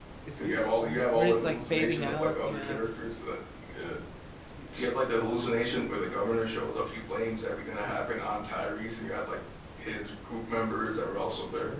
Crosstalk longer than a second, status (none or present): present